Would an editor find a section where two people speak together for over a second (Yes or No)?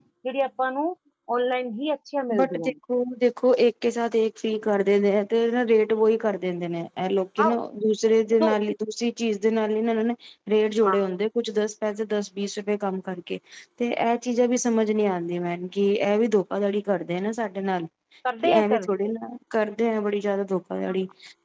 No